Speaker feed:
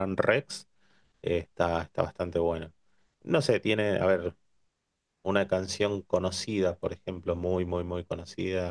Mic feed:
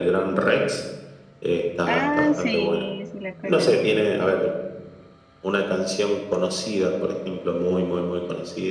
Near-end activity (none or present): present